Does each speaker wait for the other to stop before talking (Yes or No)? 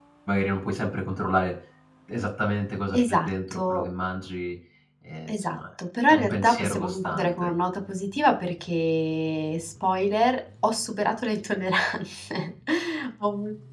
No